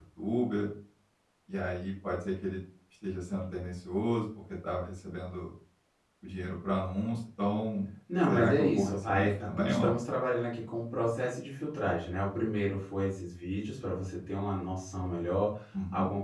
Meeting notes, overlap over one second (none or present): present